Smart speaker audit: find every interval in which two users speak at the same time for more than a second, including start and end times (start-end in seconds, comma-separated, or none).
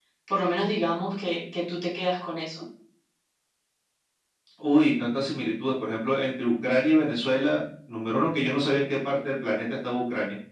none